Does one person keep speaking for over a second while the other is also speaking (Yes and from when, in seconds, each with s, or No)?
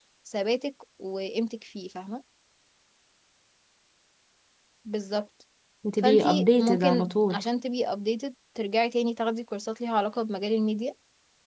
Yes, from 6.0 s